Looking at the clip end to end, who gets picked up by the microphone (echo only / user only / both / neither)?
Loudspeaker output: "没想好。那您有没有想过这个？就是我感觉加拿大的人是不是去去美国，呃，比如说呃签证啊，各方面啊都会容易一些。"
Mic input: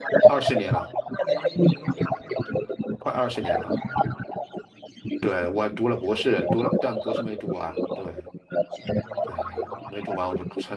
both